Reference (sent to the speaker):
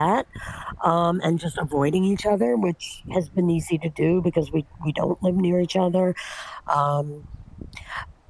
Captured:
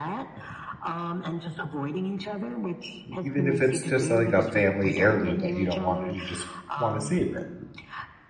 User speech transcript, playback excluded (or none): Even if it's just, like, a family heirloom that you don't want you just wanna save it.